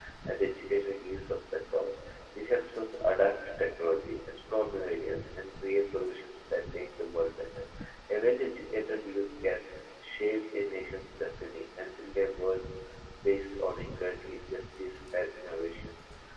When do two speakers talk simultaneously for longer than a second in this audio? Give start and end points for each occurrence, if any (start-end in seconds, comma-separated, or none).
none